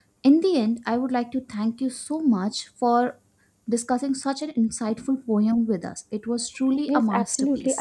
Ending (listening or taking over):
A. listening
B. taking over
B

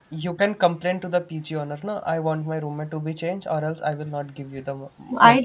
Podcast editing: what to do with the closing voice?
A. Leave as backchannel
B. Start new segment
B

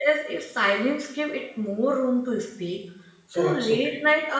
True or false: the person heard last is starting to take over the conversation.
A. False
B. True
A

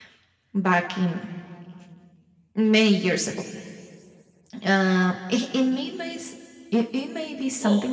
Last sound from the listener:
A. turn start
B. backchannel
B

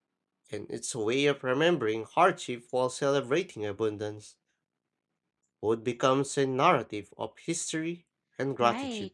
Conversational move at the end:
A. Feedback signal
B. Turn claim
B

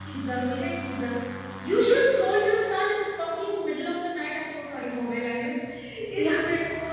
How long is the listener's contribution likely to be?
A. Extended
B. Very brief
B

